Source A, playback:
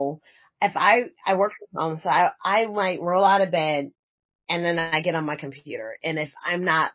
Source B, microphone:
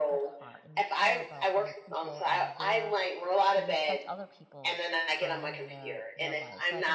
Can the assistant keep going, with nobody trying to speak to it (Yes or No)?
No